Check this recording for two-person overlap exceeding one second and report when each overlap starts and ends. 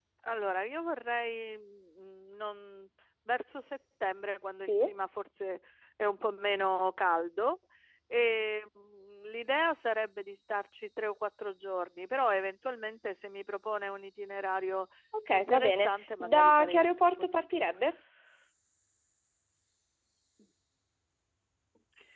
15.3-17.7

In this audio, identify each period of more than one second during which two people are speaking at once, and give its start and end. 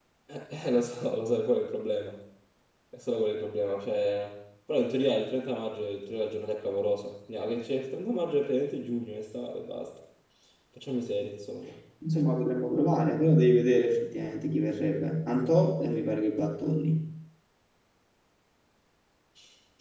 none

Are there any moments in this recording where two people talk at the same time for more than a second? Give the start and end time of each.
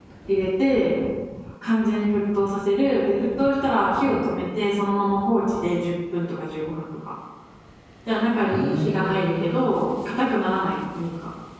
8.4-9.9

